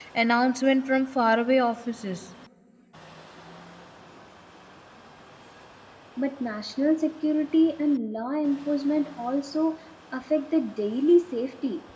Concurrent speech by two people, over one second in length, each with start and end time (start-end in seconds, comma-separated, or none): none